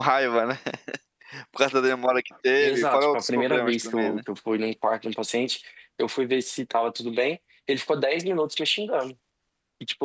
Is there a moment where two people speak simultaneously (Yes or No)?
Yes